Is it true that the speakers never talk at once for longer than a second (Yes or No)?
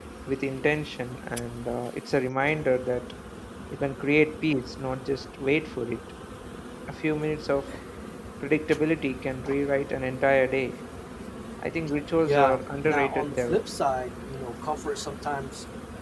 No